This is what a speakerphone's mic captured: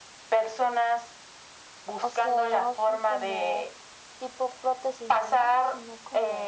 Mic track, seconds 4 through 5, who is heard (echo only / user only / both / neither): echo only